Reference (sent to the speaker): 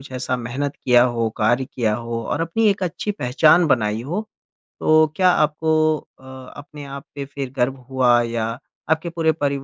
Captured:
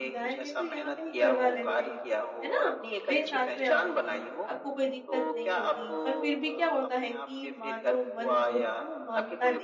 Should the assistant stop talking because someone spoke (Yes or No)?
Yes